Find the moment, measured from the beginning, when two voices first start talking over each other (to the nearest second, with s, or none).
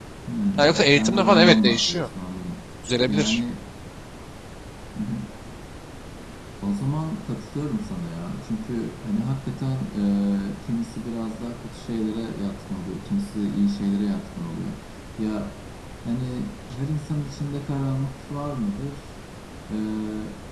1 s